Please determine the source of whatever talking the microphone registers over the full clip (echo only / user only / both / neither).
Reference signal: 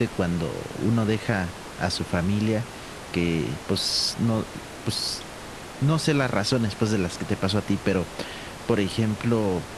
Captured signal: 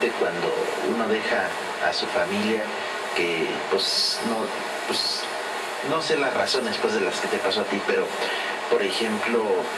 echo only